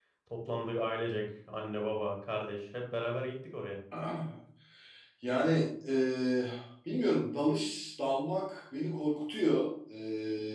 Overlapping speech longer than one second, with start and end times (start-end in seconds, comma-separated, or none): none